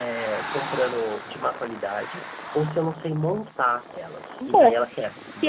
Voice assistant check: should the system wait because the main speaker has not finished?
No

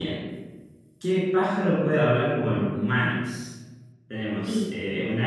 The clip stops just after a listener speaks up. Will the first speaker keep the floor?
Yes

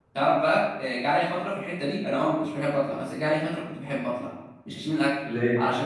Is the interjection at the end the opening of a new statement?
No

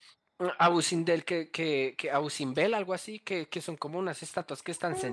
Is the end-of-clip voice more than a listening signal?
Yes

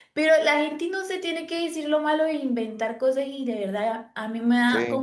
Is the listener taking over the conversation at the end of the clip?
No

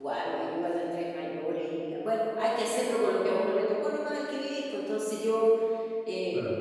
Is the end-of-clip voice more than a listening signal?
No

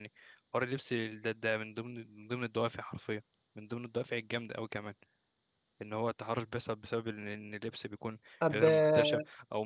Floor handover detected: No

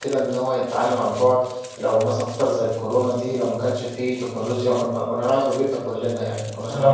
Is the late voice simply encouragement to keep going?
No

